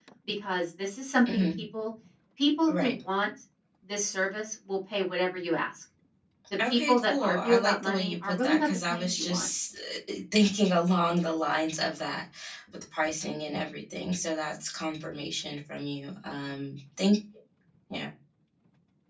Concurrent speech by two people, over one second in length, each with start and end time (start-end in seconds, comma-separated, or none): 6.7-9.5